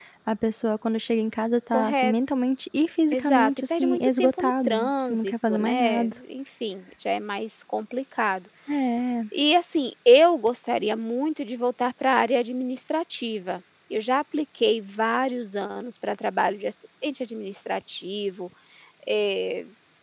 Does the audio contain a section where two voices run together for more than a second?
Yes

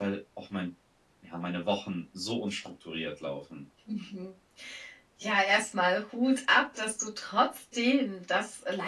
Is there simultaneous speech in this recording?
No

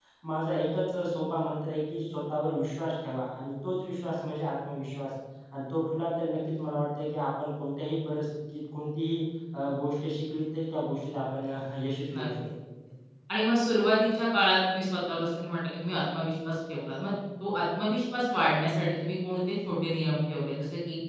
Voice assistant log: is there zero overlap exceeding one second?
Yes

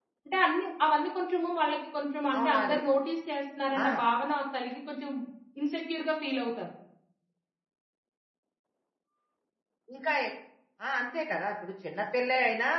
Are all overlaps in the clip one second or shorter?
Yes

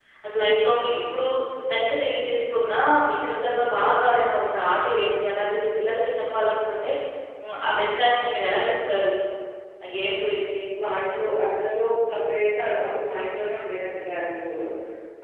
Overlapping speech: No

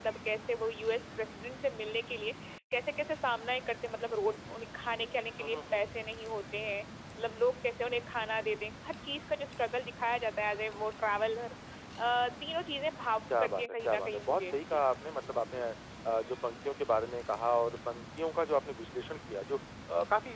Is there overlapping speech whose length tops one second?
Yes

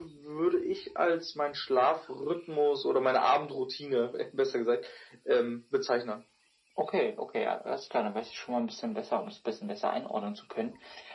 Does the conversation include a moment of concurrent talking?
No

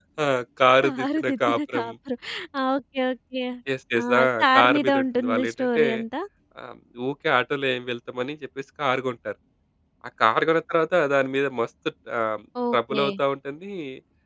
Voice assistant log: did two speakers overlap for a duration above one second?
Yes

